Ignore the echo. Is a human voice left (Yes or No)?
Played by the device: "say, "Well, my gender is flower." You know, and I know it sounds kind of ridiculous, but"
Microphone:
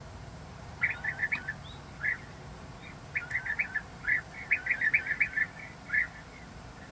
No